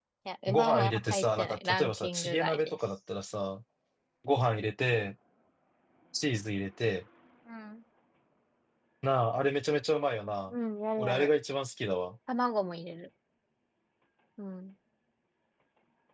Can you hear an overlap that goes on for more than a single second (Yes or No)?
Yes